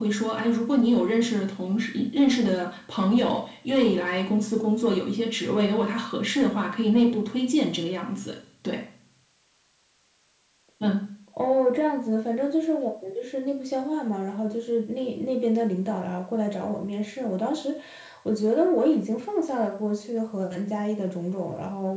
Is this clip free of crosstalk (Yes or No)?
Yes